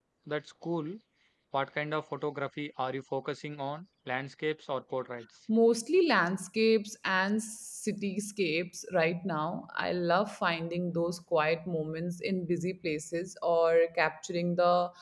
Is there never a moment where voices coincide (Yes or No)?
Yes